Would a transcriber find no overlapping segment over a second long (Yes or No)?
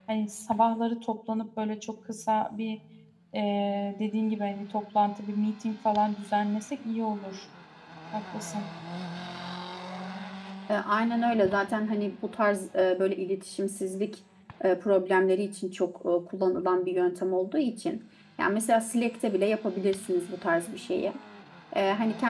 Yes